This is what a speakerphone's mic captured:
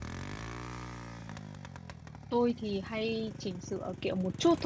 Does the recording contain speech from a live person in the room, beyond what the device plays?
Yes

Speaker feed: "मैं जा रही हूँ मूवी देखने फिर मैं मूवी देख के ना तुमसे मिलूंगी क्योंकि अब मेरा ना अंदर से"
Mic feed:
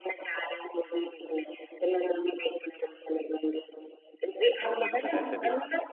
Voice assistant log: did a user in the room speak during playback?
Yes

